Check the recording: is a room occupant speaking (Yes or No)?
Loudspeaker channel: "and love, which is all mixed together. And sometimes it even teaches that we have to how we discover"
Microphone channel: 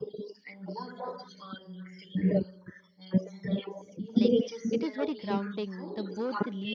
Yes